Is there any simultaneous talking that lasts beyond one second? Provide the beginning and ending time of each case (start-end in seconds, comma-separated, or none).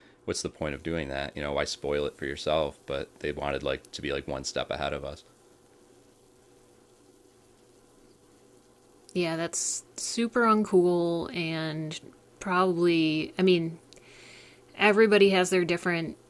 none